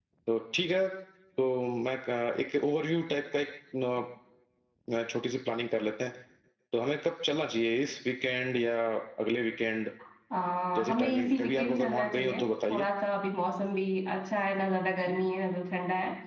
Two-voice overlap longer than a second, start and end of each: 10.8-12.8

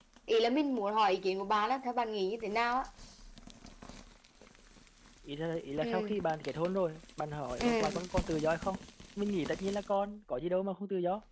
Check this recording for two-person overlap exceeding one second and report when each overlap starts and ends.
none

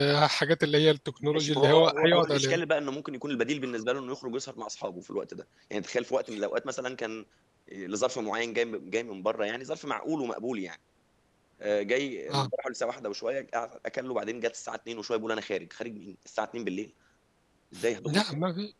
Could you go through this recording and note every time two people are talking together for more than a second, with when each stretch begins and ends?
1.2-2.6

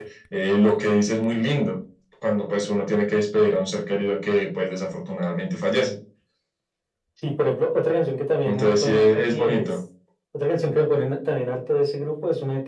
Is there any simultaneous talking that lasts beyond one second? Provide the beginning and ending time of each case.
8.4-9.7

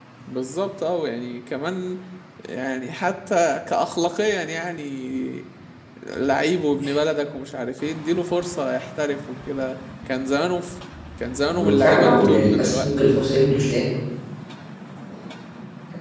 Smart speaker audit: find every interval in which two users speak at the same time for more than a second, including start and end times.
11.5-13.6

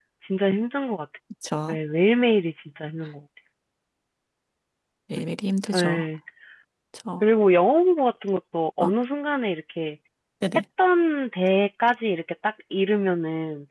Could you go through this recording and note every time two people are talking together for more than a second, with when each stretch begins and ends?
none

